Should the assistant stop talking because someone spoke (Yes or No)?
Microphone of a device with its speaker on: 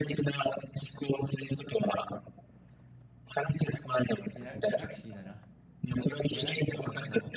Yes